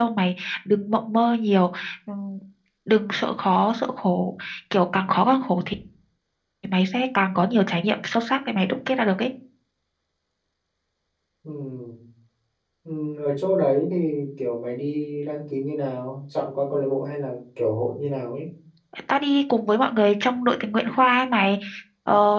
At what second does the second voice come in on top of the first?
none

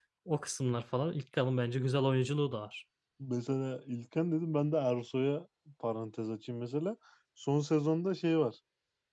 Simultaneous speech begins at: none

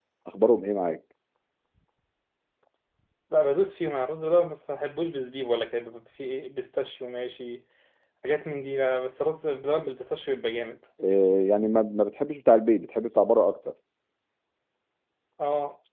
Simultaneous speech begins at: none

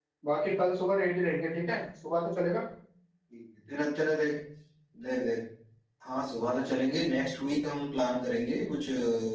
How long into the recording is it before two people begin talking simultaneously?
none

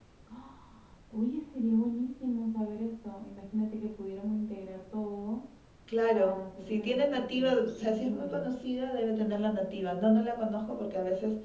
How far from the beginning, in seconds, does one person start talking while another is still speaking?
6.1 s

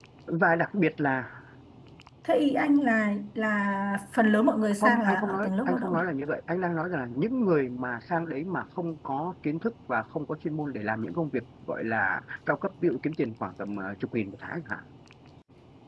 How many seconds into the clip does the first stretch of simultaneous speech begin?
4.8 s

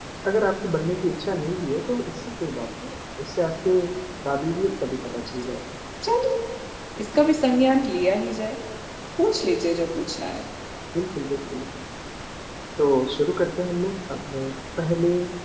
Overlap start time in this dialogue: none

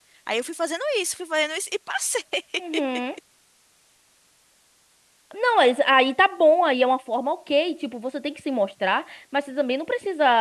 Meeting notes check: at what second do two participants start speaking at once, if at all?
none

